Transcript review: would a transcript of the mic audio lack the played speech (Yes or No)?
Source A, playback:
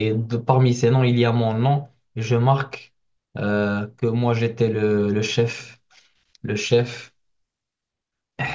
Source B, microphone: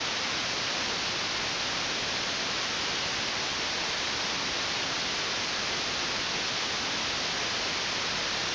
Yes